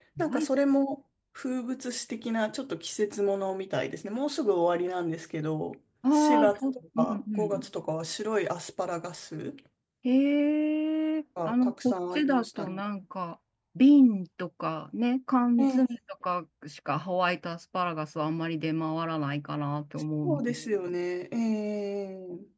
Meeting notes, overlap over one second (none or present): present